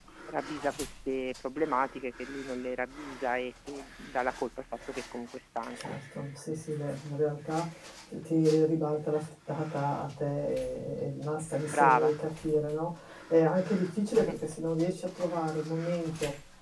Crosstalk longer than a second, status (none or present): none